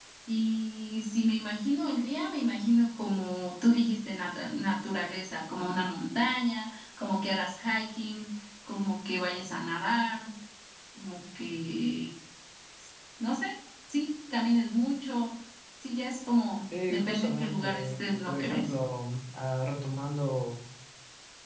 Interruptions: present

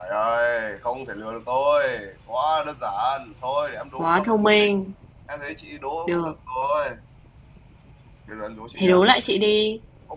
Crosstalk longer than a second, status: none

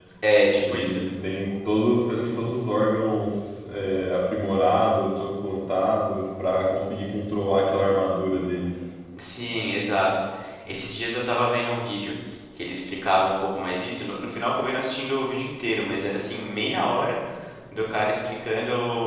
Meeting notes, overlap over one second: none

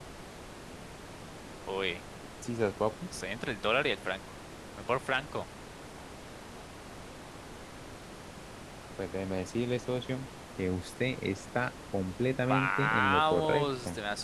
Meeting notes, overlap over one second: present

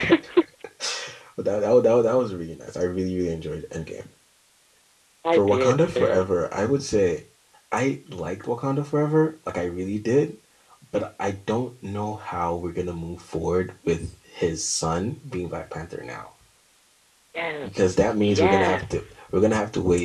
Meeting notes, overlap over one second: present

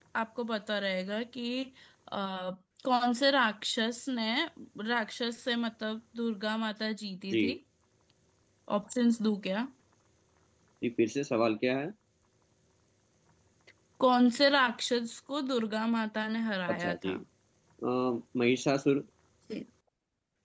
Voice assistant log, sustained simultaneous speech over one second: none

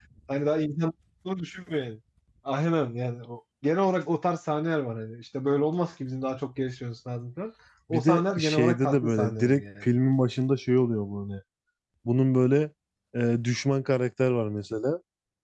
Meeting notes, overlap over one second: present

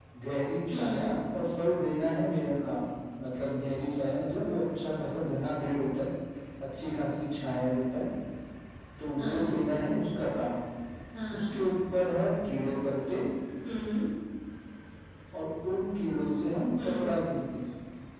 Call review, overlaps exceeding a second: none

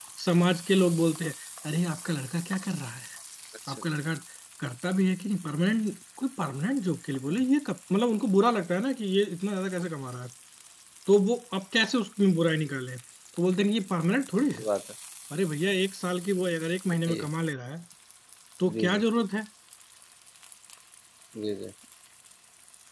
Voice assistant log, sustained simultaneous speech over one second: none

